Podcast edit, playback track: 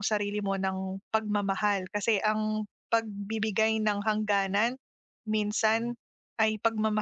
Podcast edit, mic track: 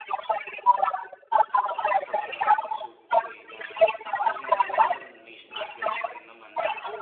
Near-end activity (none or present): present